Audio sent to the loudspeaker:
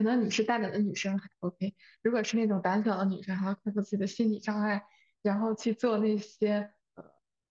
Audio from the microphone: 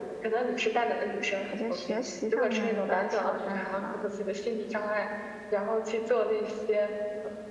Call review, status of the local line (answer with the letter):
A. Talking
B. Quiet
A